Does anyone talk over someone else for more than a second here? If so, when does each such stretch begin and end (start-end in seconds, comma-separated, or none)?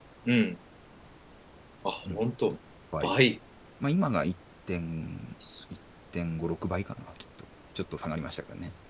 none